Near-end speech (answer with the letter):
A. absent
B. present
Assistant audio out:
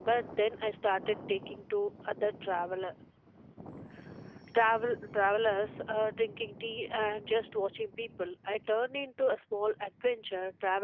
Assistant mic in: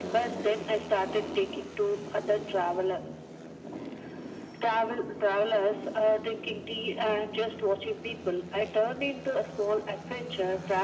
A